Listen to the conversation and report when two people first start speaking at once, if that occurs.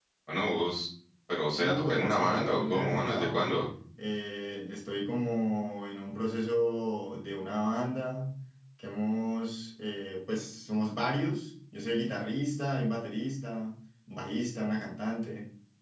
1.6 s

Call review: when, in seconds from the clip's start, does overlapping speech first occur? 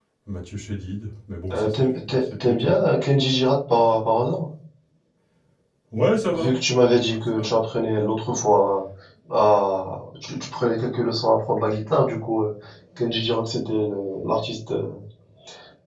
1.5 s

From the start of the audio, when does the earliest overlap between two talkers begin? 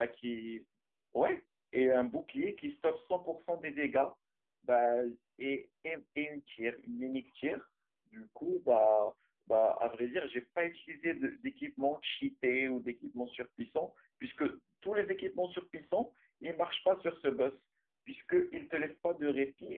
none

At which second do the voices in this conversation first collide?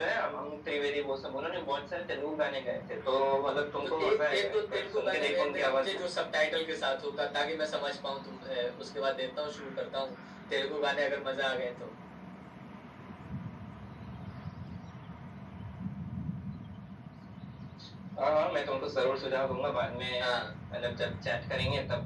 3.8 s

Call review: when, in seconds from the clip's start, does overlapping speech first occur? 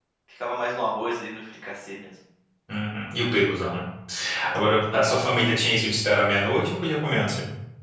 none

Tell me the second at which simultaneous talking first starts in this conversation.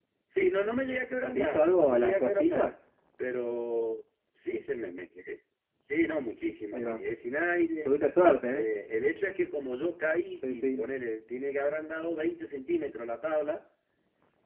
1.2 s

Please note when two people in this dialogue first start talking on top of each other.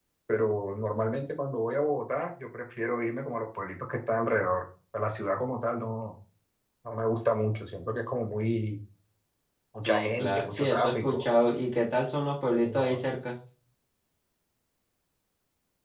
9.9 s

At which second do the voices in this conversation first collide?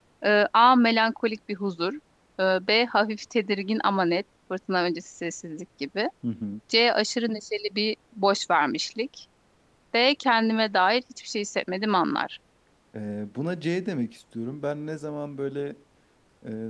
none

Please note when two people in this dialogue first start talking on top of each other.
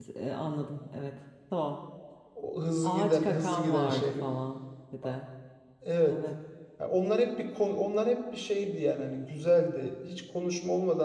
2.8 s

